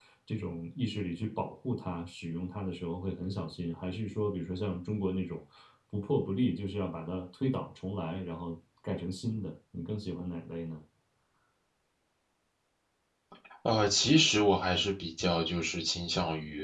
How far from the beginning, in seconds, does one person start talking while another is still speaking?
none

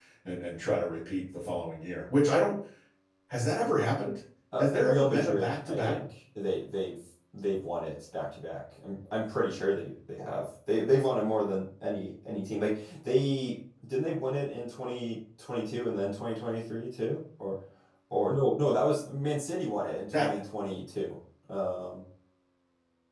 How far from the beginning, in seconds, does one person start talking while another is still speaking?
5 s

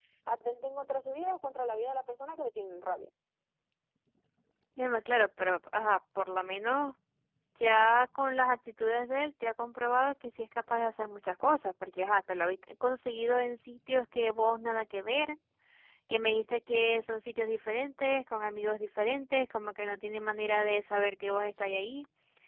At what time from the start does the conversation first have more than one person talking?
none

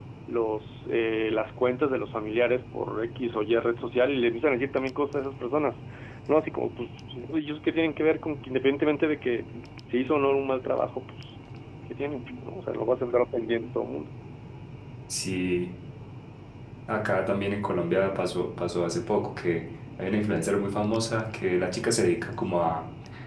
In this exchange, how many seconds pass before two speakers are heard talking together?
none

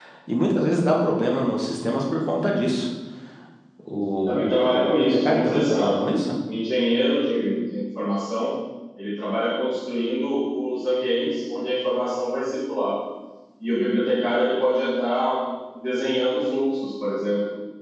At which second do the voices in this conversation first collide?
4 s

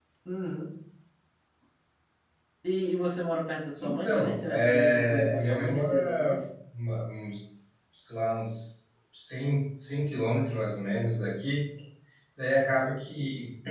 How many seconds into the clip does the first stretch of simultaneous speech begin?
4 s

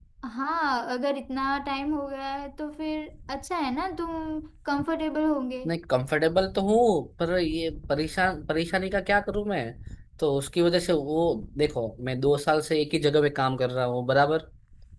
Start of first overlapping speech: none

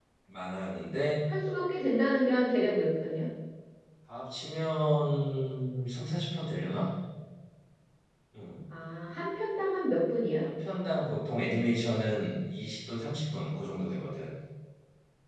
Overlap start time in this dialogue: none

